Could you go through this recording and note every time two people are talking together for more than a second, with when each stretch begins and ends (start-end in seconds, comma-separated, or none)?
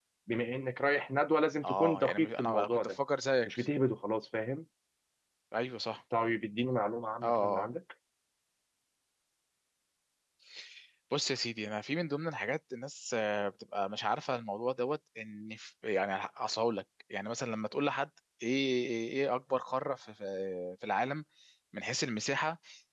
1.6-3.0